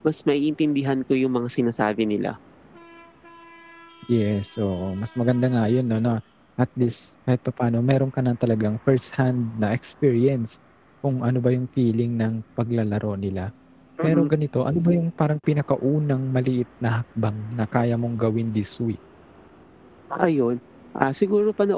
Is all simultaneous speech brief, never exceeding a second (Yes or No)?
Yes